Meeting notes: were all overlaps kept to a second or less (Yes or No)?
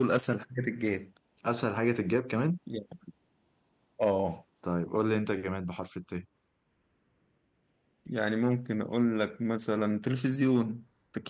Yes